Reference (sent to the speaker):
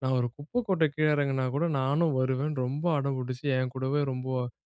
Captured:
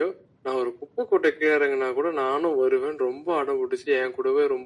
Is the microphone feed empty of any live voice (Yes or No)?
Yes